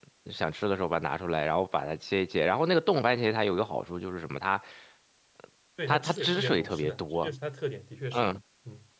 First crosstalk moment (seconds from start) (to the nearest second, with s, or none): 6 s